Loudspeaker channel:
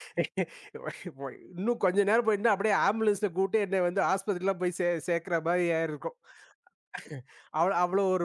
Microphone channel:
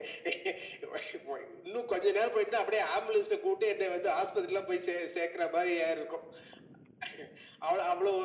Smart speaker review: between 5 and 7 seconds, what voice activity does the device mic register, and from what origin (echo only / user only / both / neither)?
echo only